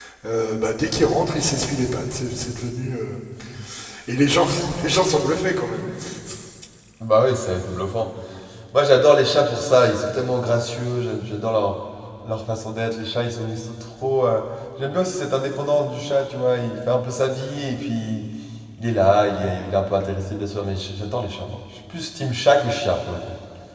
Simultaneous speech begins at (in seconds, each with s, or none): none